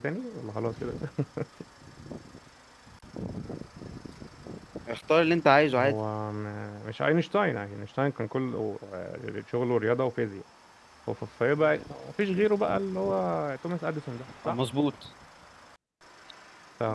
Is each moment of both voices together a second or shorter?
Yes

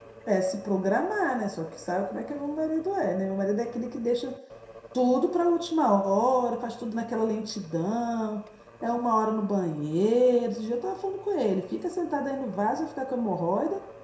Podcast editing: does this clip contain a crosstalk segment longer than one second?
No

